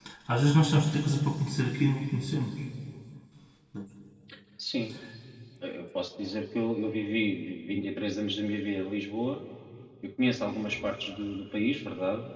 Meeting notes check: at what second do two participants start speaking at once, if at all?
none

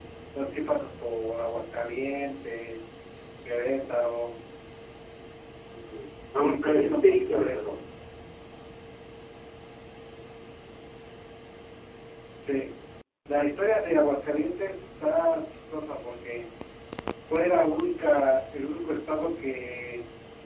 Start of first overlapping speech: 6 s

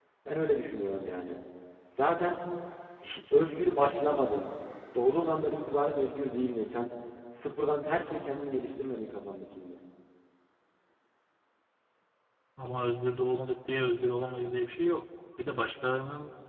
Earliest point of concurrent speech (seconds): none

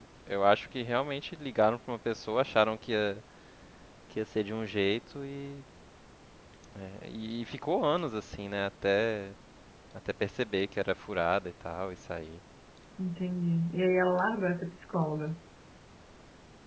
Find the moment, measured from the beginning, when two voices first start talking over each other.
none

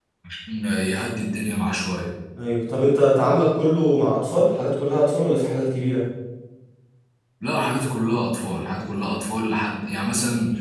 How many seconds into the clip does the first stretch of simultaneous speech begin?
none

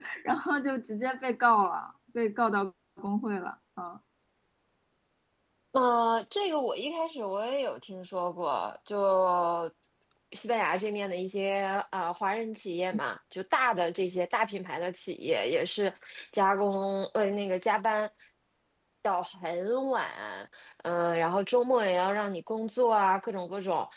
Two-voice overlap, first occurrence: none

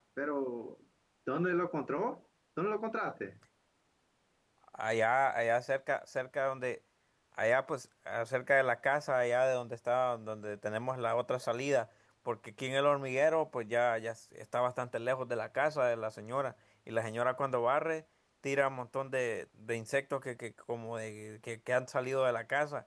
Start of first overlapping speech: none

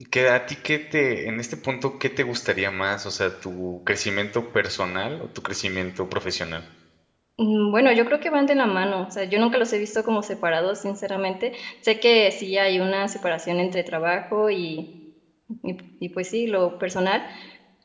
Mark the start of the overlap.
none

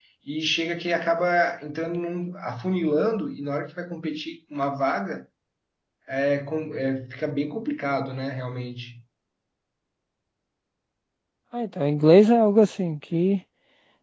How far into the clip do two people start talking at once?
none

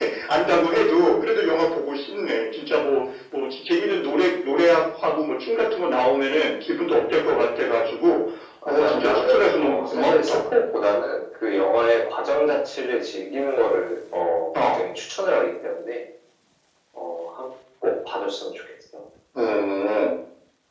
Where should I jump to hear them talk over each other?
9 s

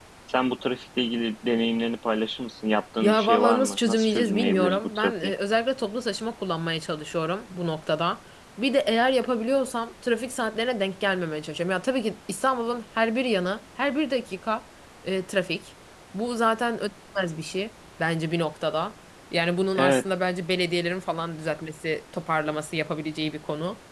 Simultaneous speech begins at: 3 s

